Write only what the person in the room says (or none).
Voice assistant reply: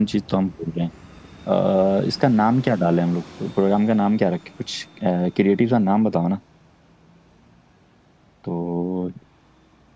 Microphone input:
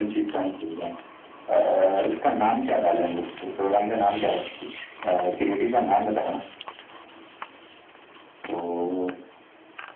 none